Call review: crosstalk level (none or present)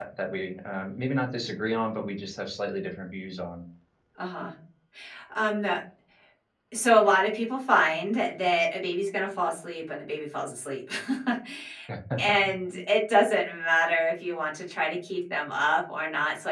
none